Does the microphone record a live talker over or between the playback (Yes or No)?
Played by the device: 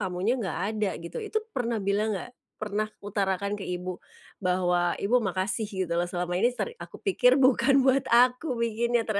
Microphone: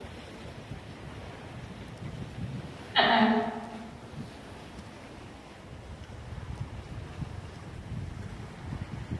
Yes